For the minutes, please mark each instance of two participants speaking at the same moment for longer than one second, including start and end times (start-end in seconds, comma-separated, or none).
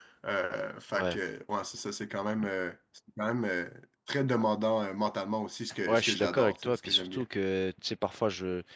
5.9-7.2